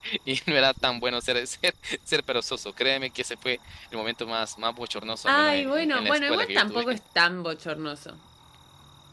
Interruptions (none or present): present